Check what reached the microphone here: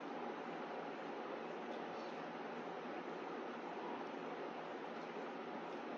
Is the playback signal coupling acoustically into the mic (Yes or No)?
No